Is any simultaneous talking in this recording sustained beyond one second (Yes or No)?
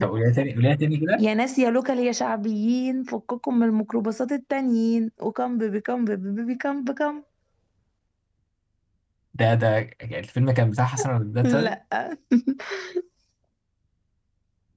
No